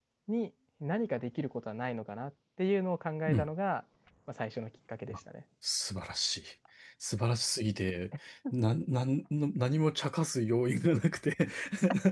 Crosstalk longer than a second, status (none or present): none